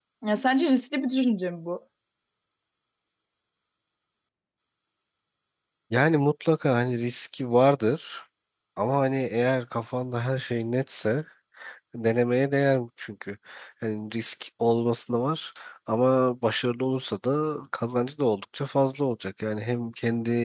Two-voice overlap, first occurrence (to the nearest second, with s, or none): none